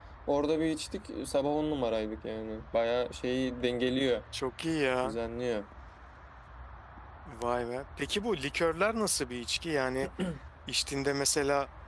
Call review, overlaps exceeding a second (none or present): none